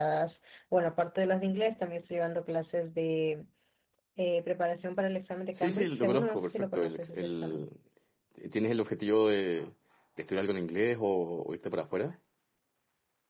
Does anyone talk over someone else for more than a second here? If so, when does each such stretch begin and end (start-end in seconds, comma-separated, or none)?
5.5-7.6